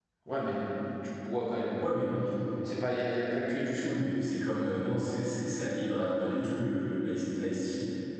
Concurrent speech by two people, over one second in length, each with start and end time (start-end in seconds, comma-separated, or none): none